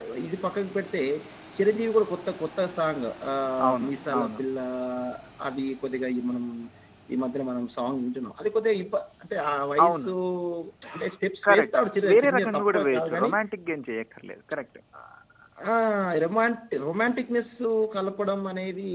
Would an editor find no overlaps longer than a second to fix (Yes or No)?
No